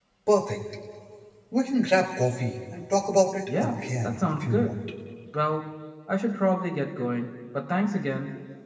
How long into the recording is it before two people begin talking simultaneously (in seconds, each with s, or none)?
3.5 s